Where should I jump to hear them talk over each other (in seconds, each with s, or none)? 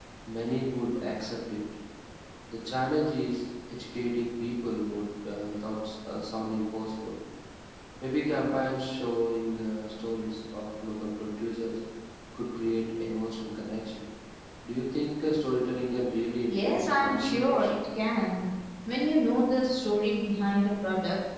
16.5 s